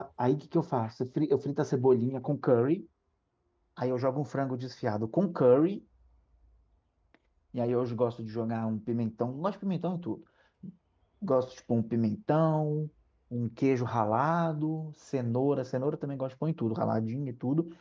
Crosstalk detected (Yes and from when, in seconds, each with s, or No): No